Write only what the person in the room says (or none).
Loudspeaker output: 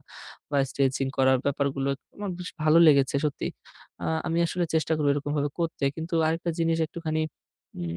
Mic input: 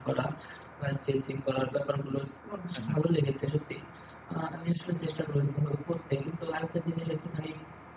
হ্যাঁ।